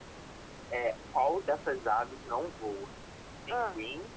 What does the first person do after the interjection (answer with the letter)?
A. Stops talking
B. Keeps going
B